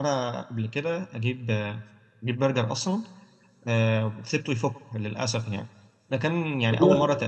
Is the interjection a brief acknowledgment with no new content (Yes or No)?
Yes